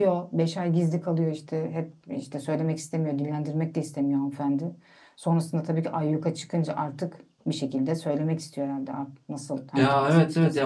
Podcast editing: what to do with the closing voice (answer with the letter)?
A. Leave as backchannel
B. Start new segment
B